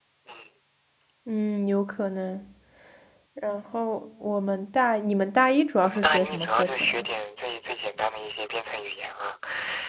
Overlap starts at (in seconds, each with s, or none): 5.8 s